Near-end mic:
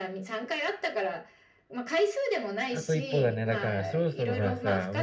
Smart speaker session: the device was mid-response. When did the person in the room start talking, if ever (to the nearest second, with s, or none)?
3 s